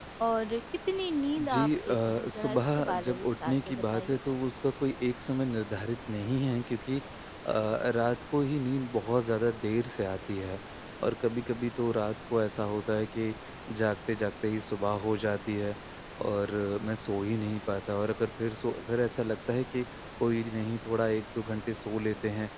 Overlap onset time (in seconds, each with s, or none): 1.4 s